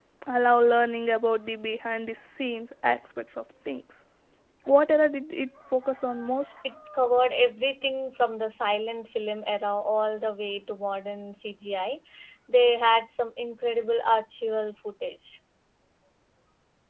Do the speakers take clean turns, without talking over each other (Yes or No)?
Yes